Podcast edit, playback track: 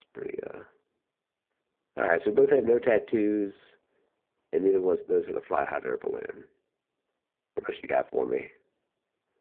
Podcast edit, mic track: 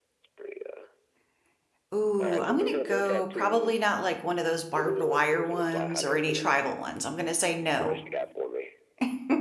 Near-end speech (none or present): present